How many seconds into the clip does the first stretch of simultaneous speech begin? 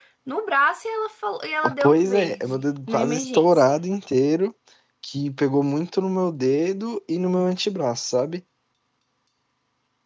1.6 s

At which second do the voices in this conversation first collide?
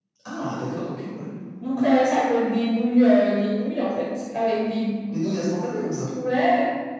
none

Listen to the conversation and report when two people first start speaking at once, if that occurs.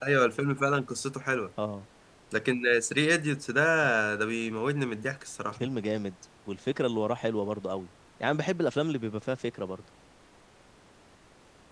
none

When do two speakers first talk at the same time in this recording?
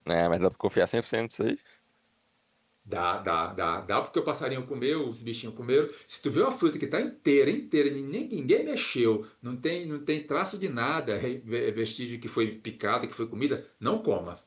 none

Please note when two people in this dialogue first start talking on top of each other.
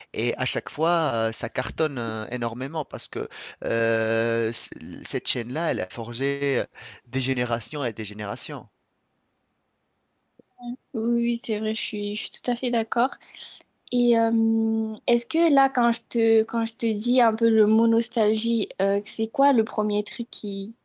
none

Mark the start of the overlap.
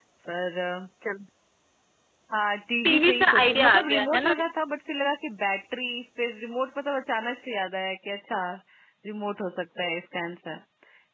2.8 s

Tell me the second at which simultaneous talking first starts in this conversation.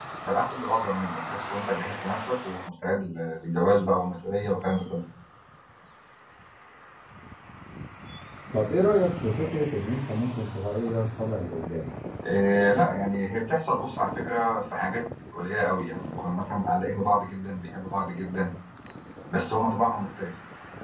none

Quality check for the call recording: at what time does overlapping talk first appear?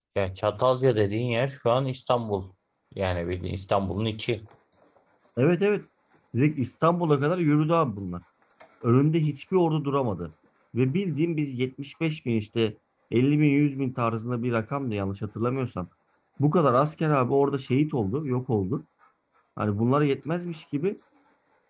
none

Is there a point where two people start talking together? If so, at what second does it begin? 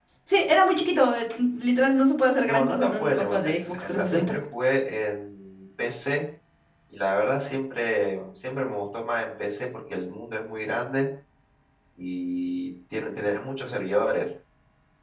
2.4 s

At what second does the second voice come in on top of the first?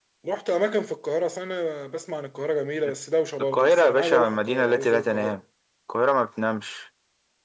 3.5 s

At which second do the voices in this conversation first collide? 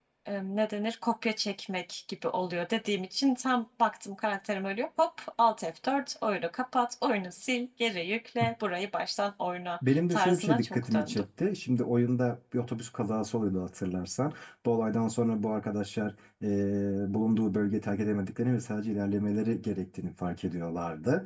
9.8 s

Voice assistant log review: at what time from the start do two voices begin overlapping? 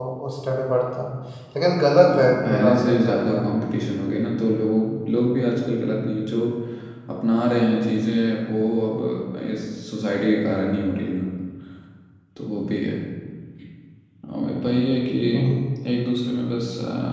2.1 s

